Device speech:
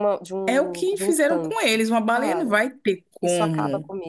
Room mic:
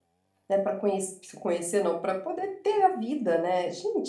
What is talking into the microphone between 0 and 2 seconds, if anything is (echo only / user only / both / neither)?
user only